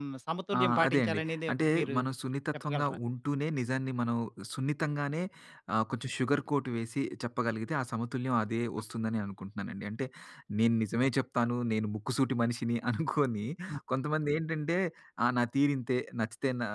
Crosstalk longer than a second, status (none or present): present